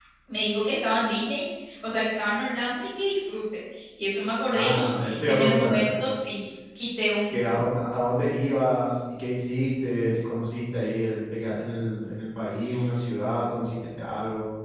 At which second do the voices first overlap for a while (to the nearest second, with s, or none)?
5 s